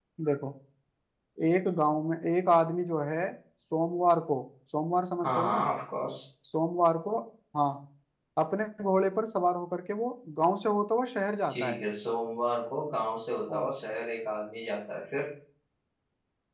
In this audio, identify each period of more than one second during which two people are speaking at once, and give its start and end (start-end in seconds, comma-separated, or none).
none